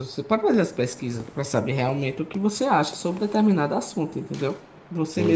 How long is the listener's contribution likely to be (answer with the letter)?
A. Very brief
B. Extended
B